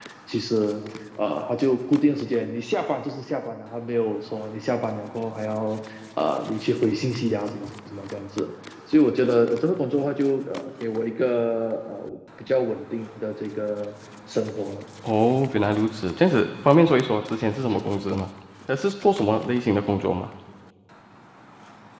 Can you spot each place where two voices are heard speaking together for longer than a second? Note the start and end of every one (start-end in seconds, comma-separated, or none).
none